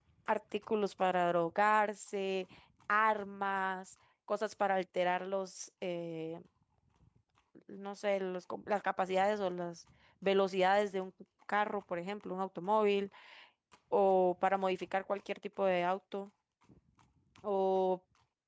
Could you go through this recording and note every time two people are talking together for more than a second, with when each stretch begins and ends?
none

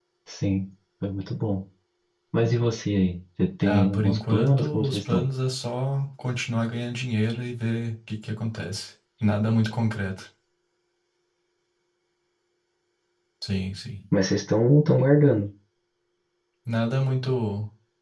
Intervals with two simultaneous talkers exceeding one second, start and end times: 3.6-5.3

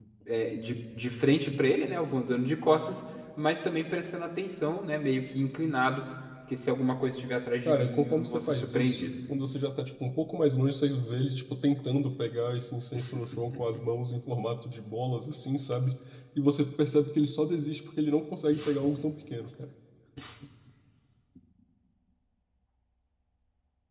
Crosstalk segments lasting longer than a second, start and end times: 7.7-9.0

